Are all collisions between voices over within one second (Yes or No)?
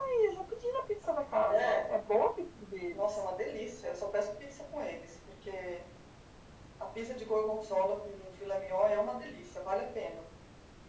Yes